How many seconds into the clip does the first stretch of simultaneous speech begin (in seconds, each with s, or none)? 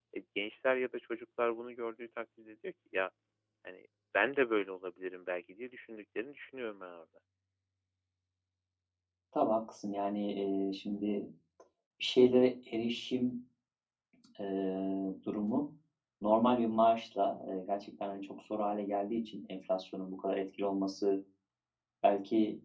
none